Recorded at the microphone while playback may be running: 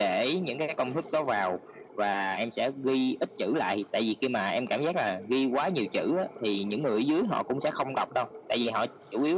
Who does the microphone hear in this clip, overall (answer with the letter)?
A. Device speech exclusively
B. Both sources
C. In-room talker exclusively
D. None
A